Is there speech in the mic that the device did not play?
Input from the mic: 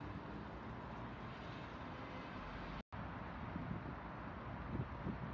No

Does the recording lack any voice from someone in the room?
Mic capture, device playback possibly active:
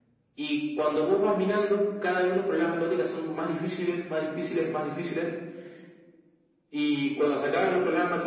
Yes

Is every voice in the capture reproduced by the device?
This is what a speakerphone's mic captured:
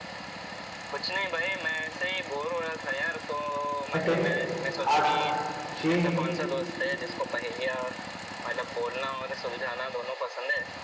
No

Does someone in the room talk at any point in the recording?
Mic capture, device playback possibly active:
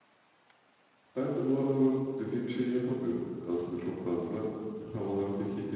Yes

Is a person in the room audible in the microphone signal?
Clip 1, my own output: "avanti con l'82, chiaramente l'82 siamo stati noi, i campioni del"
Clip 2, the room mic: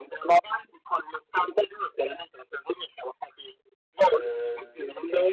Yes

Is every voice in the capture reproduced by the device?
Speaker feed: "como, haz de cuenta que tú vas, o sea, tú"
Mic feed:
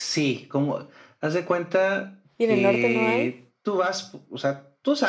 No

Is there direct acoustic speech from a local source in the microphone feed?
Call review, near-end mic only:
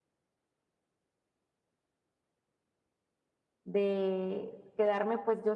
Yes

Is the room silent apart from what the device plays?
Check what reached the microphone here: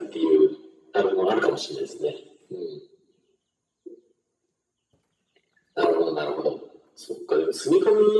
Yes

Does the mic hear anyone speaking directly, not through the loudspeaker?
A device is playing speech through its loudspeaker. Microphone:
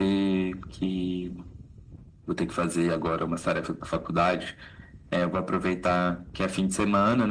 No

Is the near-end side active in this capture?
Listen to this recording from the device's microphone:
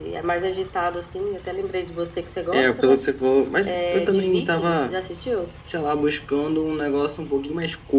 No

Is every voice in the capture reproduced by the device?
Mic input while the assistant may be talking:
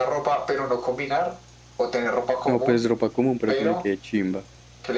No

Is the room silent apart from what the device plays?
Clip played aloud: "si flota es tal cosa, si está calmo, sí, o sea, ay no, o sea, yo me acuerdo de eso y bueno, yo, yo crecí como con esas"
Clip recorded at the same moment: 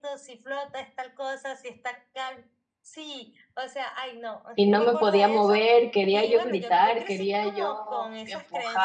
No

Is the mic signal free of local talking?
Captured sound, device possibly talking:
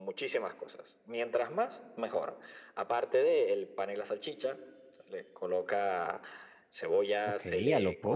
No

